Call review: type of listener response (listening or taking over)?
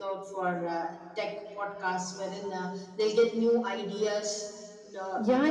taking over